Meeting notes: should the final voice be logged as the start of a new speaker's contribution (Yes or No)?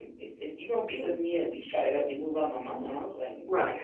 Yes